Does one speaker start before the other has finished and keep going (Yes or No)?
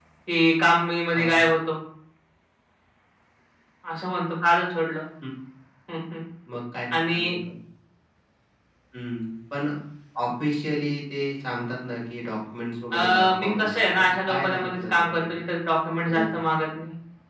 Yes